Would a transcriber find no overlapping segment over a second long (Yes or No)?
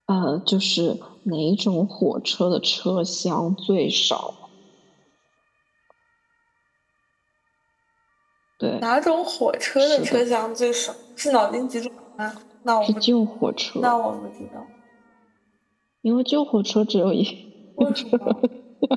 Yes